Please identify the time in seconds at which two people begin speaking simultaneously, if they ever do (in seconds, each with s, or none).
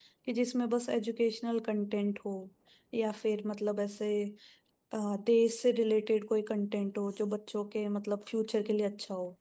none